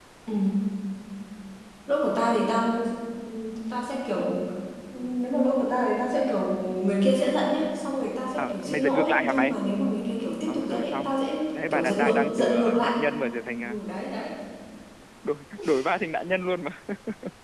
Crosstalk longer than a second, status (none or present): present